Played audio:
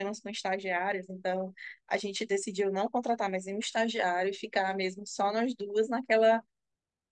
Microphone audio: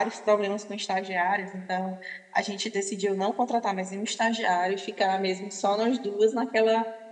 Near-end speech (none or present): none